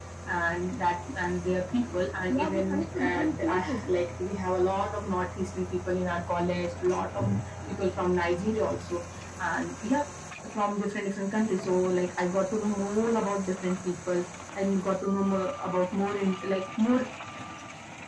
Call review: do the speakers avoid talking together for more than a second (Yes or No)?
No